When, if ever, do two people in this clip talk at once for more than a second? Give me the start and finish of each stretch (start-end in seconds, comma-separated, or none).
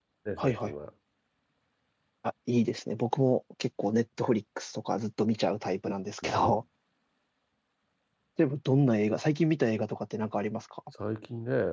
none